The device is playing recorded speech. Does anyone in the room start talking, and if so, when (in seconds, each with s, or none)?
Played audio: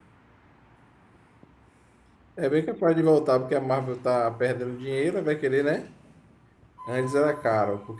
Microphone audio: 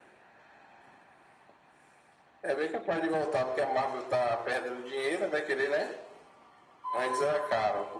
none